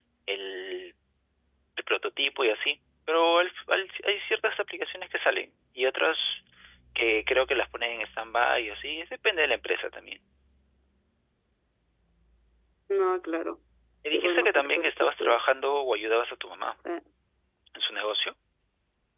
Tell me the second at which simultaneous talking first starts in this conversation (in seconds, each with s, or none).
14.1 s